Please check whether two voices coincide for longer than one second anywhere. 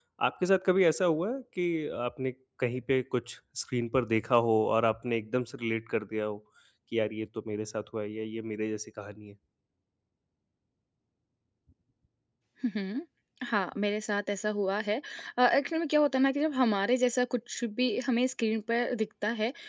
No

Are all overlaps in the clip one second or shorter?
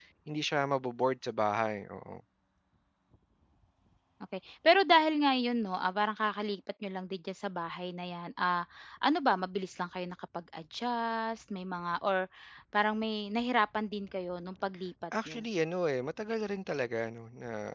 Yes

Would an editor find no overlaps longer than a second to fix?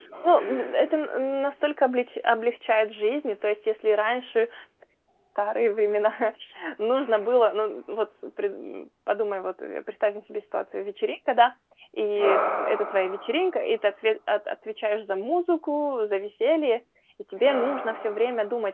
Yes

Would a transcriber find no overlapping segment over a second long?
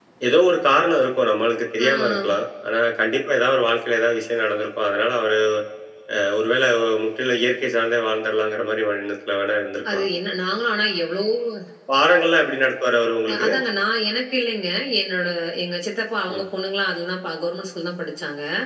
Yes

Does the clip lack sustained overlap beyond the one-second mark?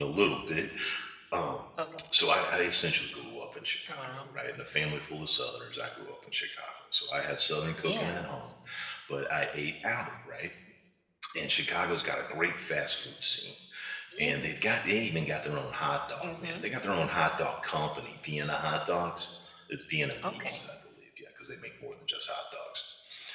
Yes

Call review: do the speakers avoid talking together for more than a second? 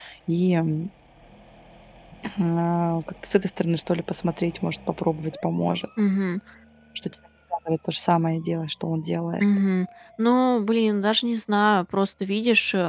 Yes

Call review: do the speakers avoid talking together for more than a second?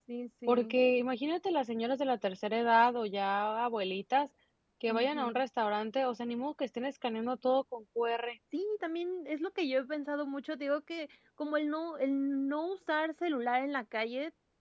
Yes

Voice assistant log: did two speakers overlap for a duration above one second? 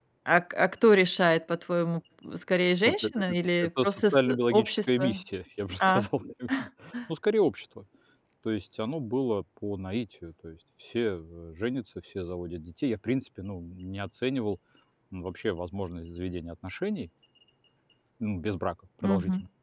Yes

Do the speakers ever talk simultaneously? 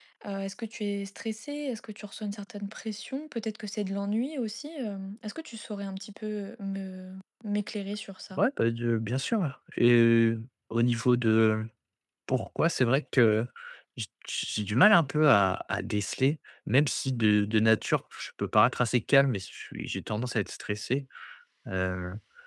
No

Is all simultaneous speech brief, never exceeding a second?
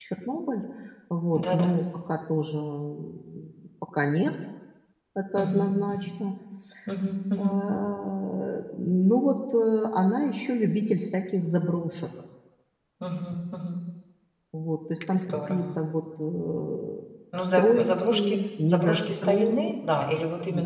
No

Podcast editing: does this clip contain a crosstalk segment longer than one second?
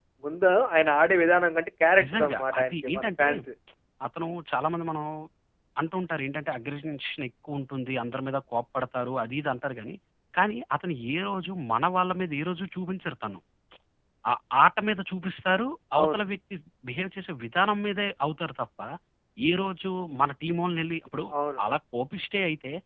Yes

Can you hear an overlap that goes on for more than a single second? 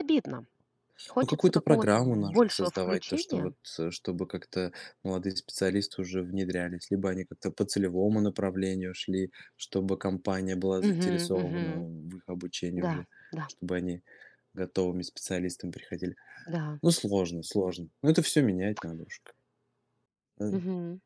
Yes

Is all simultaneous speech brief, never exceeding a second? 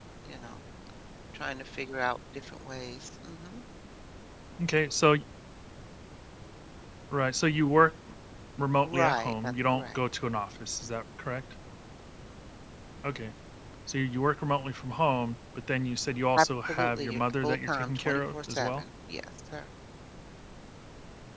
No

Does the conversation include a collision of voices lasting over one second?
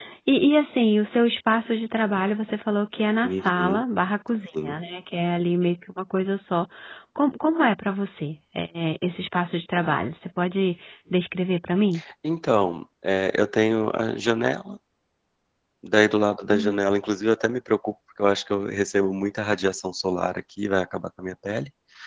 No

